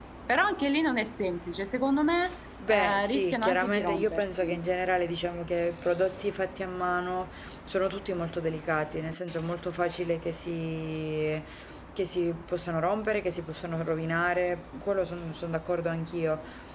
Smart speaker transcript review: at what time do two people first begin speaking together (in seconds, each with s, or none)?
2.6 s